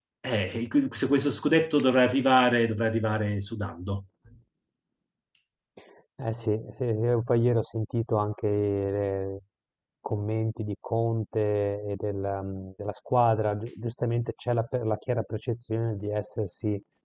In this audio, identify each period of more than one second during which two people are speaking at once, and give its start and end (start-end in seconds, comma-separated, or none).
none